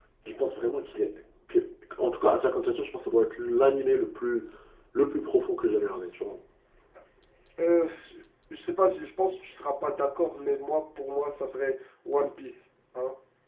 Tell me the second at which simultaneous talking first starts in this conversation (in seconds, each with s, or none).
none